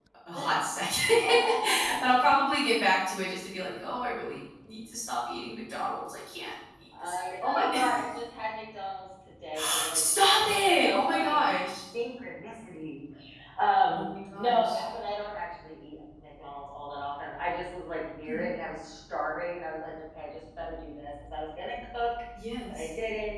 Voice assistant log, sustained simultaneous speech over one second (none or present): present